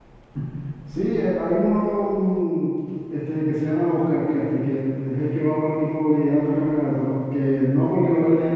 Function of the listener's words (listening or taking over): listening